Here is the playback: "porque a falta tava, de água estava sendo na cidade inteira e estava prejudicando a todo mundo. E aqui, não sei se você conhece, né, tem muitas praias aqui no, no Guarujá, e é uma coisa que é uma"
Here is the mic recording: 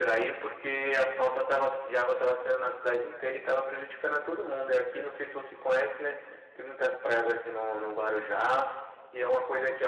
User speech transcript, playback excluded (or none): none